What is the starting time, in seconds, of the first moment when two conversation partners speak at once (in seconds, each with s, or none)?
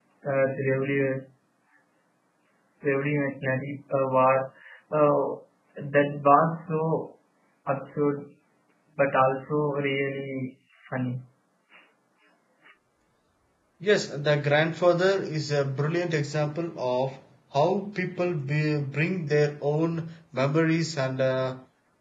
none